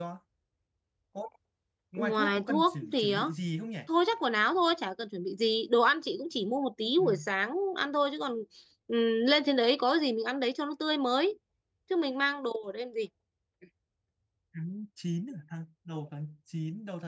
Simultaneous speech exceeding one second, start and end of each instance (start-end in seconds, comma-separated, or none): 2.0-3.2